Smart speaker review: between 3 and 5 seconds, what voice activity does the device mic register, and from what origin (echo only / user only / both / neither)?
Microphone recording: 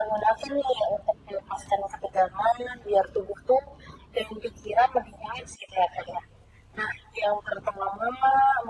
echo only